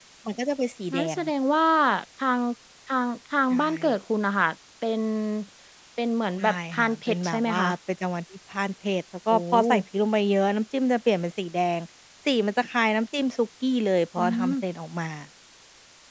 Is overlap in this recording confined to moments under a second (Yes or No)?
No